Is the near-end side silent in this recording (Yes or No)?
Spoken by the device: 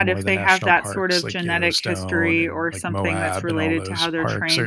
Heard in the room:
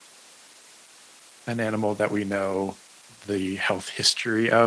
No